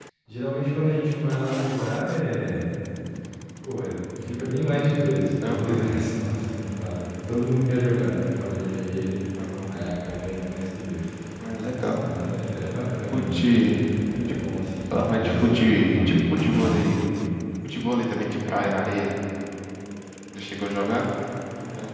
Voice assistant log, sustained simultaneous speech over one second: present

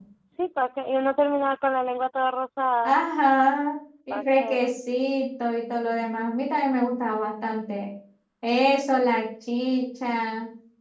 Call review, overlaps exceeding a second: none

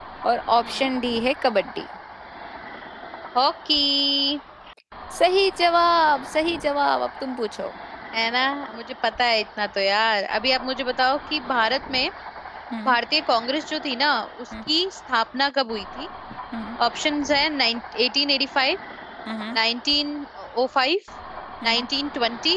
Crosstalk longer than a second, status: none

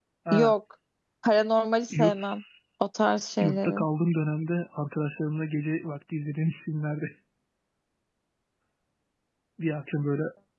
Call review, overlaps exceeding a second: none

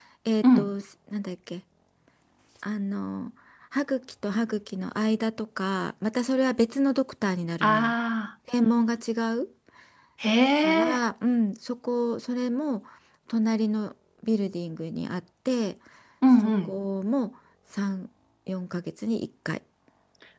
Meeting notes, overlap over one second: none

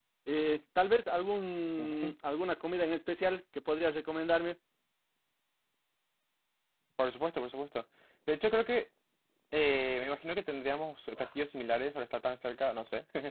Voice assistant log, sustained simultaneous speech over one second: none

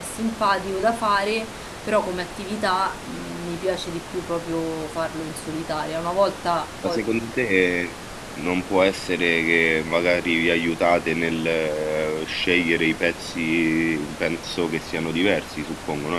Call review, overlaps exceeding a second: none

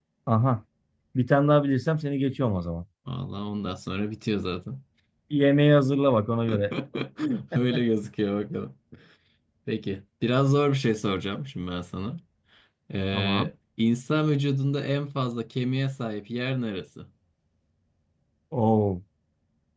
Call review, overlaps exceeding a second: none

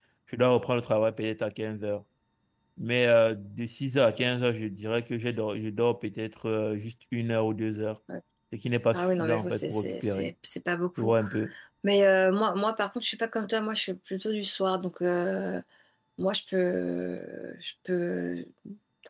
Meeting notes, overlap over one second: present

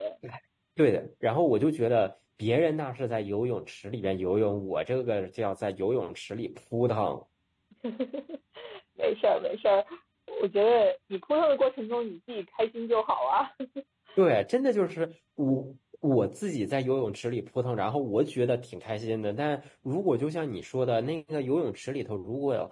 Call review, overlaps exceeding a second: none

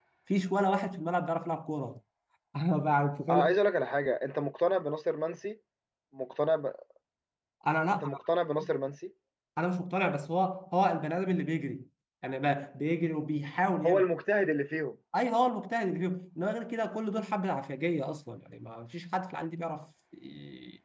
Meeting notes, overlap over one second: none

